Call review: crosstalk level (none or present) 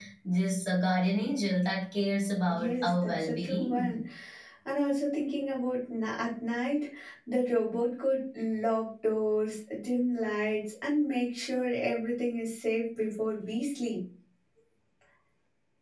present